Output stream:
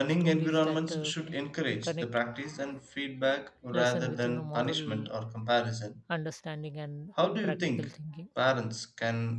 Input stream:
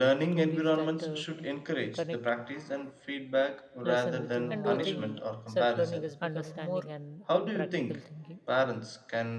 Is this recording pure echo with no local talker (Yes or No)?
No